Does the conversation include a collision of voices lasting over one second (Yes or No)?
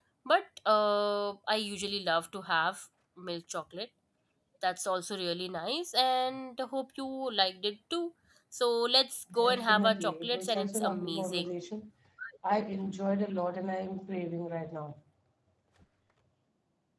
Yes